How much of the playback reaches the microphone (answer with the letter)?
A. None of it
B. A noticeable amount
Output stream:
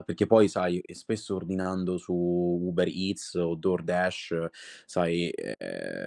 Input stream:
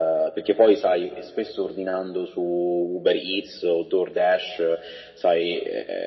B